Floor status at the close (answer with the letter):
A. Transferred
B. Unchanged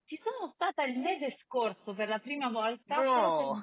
B